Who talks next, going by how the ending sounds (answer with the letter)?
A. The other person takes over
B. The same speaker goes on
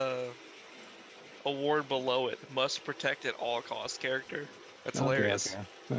A